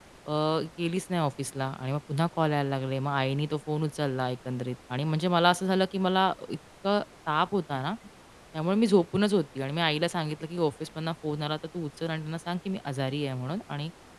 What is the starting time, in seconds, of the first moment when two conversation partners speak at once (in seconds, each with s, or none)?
none